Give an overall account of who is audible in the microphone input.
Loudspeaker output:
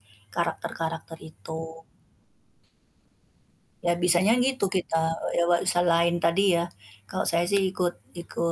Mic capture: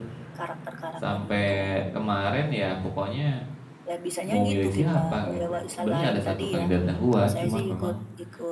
both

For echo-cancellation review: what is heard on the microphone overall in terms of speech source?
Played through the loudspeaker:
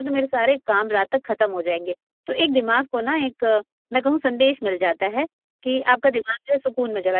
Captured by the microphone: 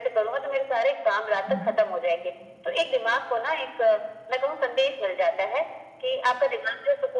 both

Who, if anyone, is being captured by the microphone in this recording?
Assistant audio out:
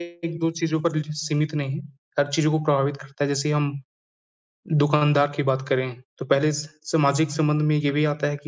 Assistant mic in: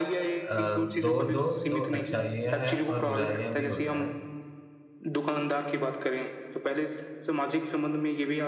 both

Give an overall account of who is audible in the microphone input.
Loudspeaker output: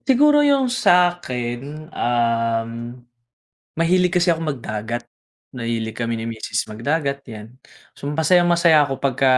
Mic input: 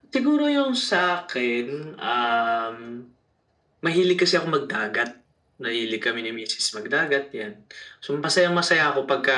echo only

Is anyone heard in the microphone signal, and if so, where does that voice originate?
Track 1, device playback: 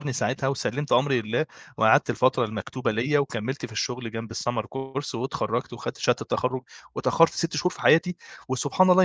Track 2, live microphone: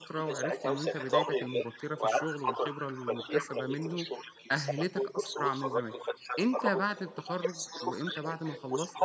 both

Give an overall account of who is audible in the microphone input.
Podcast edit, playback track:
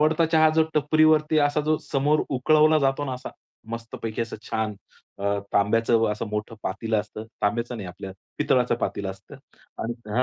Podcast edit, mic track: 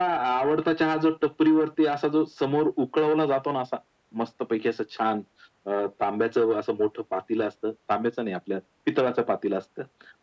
echo only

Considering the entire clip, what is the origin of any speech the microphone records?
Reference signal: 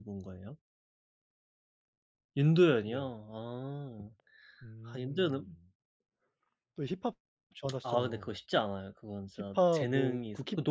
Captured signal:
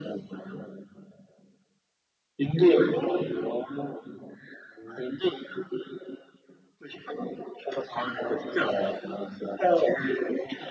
echo only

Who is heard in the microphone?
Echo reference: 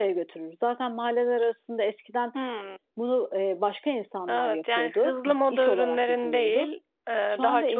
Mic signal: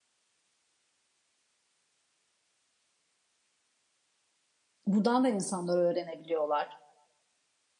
user only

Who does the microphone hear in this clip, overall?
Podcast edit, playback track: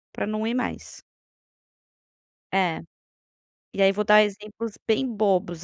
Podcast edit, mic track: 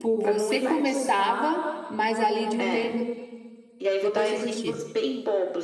both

